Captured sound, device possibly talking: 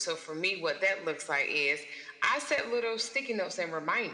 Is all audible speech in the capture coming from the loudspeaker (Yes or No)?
Yes